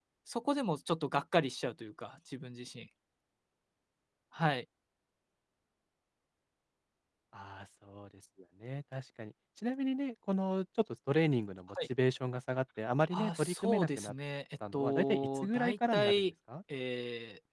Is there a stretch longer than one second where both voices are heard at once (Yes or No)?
Yes